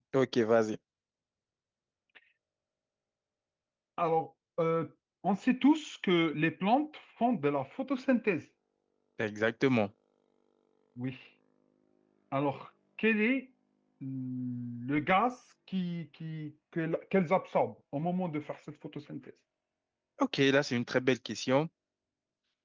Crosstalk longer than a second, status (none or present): none